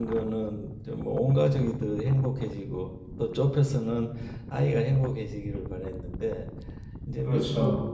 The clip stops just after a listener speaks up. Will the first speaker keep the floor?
Yes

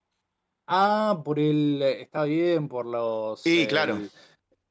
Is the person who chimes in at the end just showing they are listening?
Yes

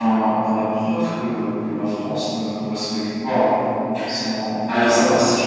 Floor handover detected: No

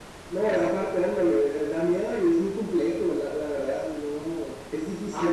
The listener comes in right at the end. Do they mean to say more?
Yes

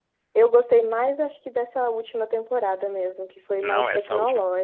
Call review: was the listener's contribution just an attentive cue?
No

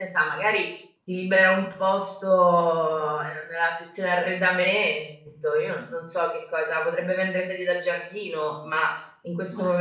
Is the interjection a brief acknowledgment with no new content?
Yes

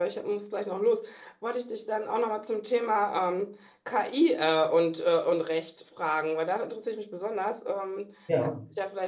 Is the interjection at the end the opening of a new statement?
No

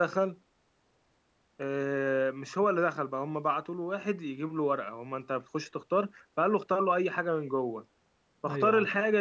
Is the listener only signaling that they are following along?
Yes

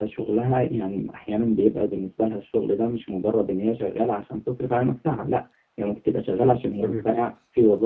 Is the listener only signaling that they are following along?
Yes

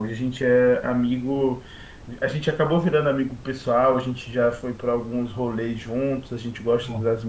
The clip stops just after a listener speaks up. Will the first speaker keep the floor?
Yes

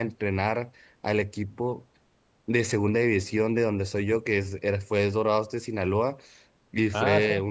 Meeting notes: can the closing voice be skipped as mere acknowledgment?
No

